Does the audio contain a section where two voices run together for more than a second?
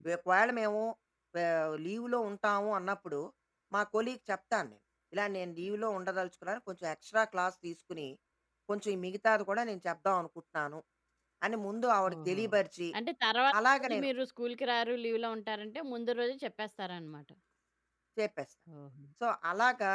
No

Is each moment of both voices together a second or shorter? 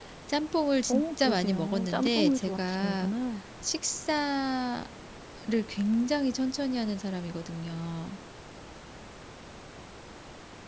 No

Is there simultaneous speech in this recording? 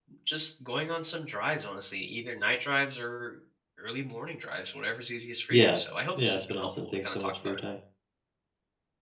Yes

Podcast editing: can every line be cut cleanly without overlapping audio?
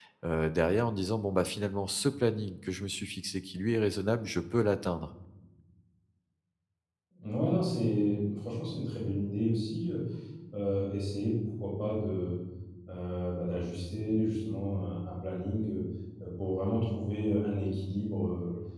Yes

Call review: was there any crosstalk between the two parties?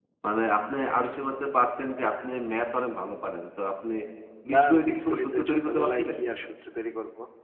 Yes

